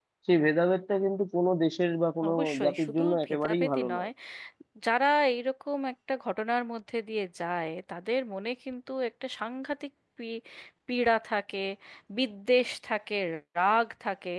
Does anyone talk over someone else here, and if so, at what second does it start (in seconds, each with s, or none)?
2.2 s